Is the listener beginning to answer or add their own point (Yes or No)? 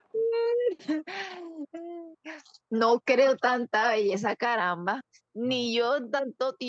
No